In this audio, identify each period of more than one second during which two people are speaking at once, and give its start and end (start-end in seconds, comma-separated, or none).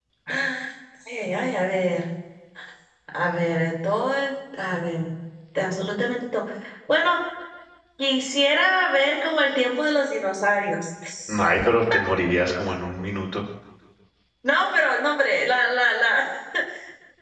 none